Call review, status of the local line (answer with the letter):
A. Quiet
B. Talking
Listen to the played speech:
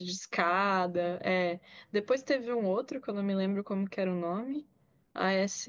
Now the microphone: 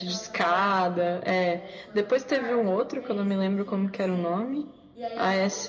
B